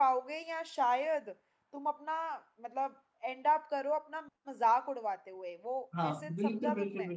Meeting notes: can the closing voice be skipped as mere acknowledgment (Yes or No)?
No